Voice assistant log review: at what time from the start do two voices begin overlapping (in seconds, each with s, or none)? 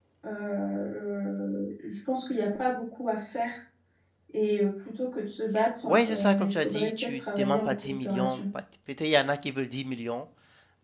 5.8 s